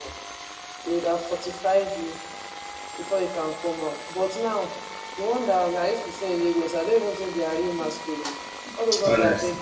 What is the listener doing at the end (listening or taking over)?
listening